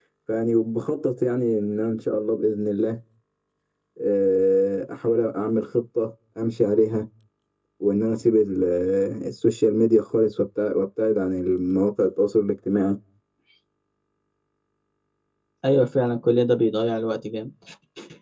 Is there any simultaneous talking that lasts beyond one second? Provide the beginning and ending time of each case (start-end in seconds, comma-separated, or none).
none